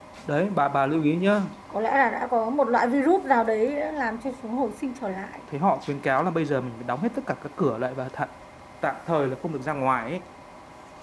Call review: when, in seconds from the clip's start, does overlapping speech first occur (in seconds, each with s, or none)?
none